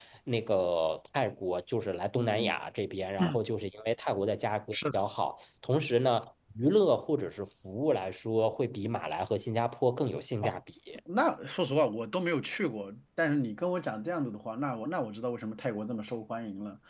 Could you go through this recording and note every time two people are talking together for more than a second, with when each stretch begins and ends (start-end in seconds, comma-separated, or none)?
none